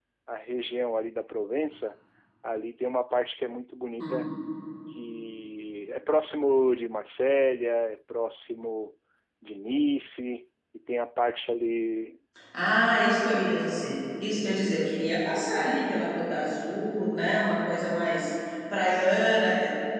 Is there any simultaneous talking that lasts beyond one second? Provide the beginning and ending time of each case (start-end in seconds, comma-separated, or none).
none